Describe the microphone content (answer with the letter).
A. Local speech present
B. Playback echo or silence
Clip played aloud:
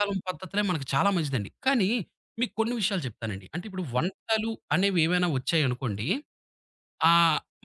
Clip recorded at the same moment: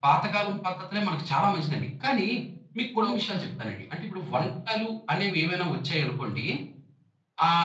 A